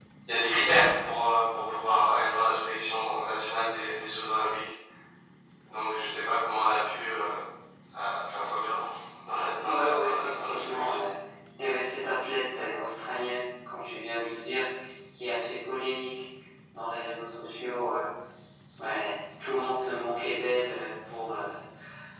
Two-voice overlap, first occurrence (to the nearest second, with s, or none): 10 s